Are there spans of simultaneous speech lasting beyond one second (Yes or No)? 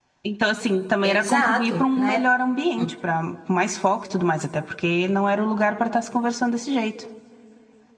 Yes